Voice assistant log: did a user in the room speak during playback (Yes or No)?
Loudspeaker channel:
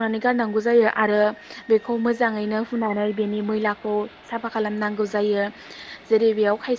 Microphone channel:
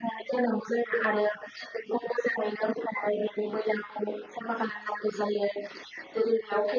No